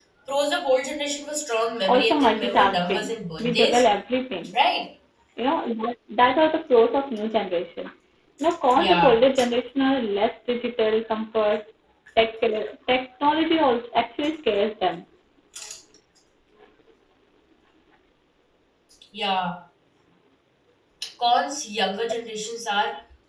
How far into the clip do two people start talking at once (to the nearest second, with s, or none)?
2 s